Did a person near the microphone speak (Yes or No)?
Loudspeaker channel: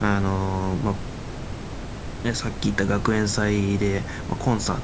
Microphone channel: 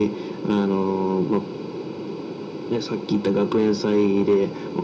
No